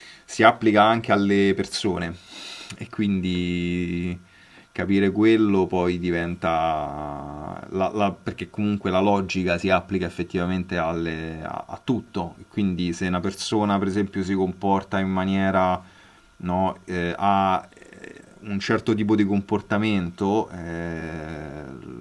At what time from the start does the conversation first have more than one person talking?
none

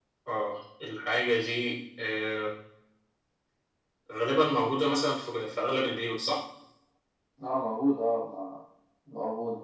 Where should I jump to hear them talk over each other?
none

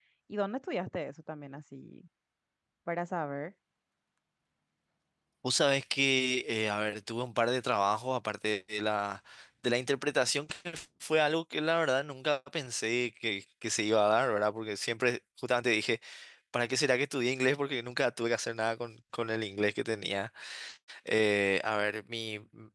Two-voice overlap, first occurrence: none

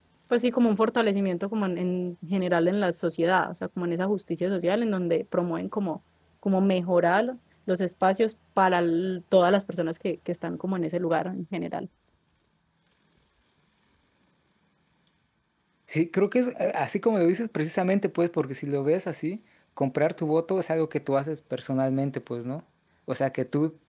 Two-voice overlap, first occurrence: none

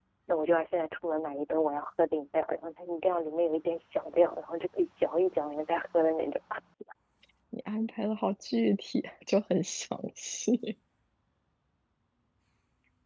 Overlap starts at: none

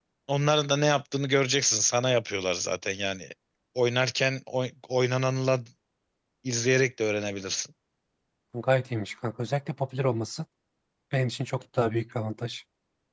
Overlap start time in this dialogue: none

